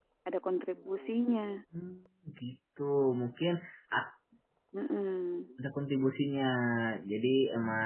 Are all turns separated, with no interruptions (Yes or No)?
Yes